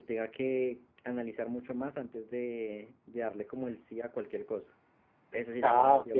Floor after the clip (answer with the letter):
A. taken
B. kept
A